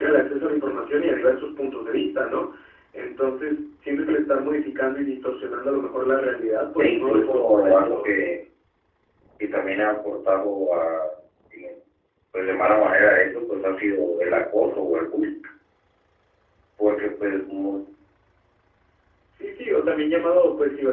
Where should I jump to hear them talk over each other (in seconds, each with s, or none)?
6.8 s